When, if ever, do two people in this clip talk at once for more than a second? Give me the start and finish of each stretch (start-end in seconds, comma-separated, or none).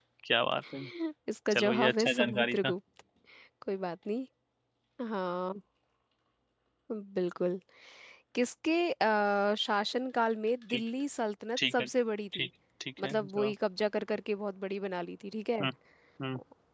1.5-2.7